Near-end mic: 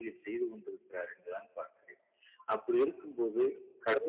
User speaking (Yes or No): No